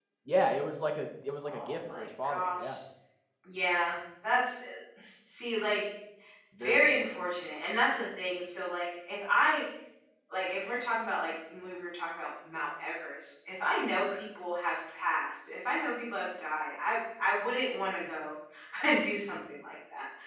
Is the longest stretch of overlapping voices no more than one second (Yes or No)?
No